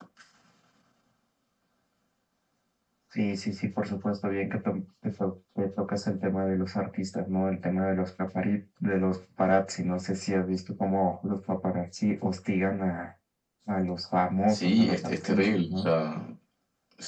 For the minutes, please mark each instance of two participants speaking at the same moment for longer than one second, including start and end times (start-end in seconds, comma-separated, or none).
14.5-15.9